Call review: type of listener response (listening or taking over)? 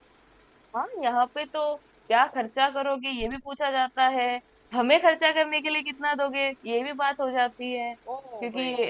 taking over